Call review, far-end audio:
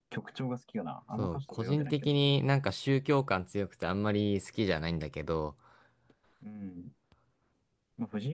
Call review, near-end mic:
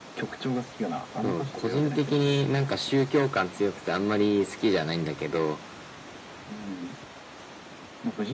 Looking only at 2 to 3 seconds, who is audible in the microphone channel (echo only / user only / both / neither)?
echo only